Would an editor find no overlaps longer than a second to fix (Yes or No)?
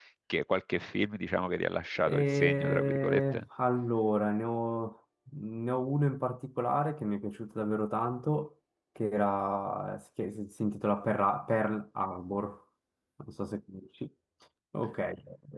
No